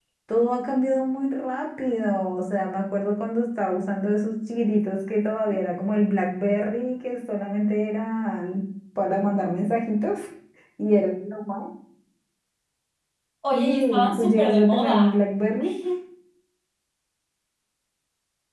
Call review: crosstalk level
present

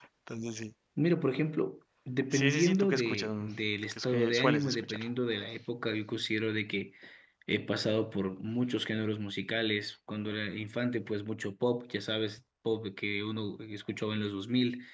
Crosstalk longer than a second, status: present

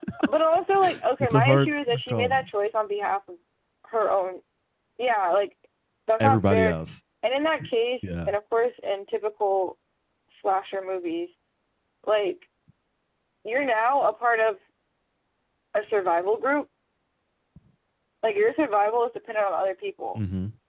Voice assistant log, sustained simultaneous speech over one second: present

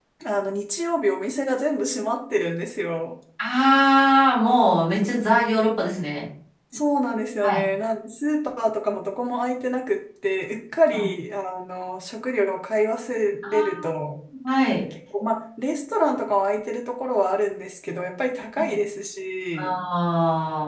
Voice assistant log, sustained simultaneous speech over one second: none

